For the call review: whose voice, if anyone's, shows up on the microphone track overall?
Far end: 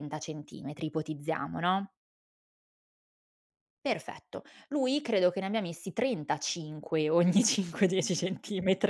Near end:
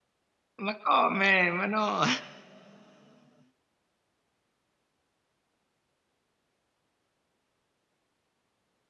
user only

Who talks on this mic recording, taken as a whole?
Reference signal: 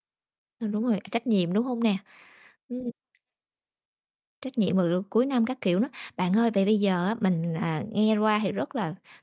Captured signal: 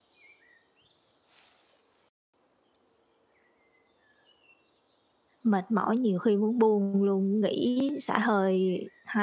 user only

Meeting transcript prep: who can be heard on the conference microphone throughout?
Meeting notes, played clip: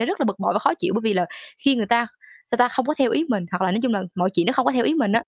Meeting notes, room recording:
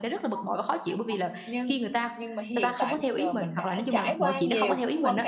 both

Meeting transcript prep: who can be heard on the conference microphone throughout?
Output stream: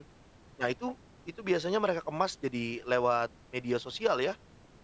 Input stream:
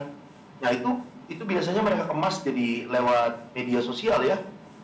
echo only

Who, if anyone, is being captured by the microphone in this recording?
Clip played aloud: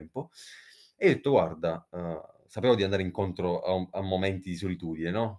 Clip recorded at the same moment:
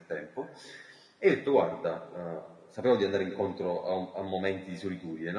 echo only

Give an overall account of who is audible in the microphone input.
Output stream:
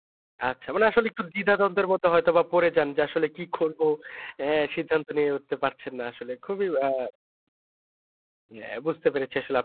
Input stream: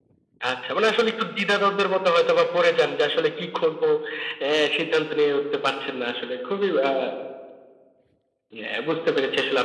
echo only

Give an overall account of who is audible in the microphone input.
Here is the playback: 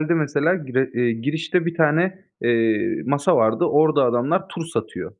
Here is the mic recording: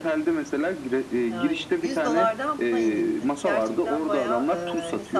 both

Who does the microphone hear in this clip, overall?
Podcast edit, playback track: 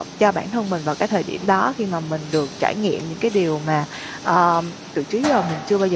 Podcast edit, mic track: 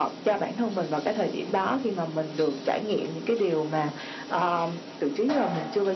echo only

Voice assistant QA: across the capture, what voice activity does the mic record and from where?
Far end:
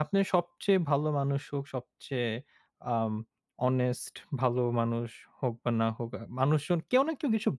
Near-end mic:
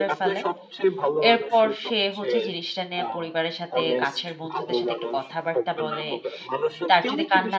both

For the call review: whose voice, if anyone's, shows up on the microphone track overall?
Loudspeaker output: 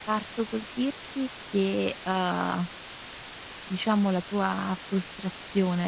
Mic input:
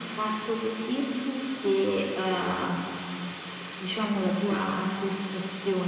both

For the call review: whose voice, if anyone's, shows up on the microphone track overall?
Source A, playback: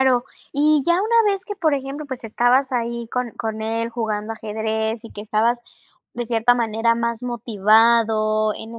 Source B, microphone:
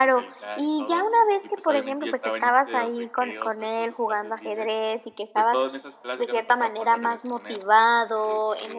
both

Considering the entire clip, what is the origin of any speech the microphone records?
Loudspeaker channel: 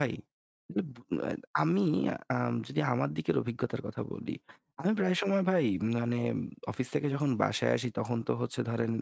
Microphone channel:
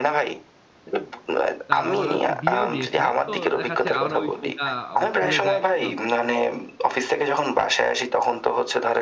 both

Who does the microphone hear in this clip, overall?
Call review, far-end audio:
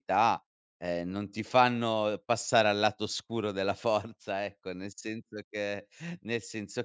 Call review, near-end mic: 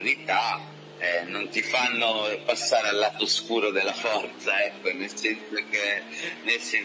echo only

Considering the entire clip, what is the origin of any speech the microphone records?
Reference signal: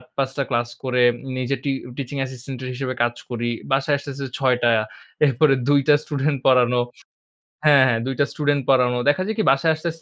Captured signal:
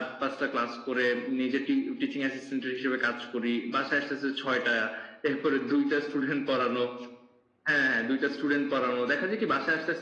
echo only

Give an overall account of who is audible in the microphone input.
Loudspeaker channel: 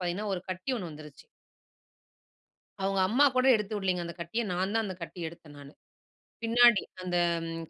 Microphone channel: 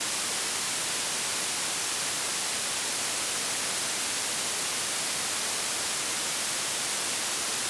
neither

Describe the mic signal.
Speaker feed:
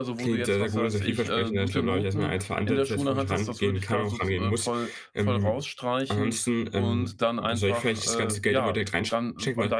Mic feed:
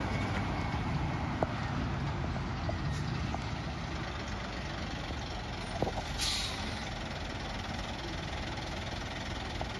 neither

